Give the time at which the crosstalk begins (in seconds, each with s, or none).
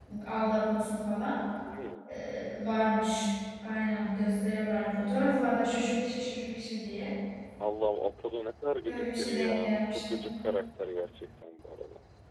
8.8 s